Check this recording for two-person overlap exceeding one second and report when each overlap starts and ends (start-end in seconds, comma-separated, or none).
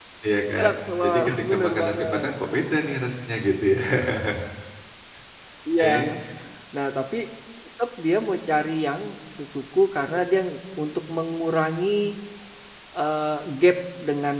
0.6-2.3